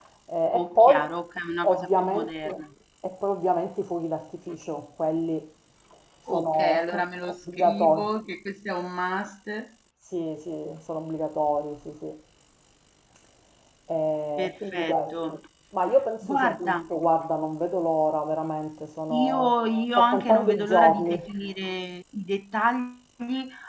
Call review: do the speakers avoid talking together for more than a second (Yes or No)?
No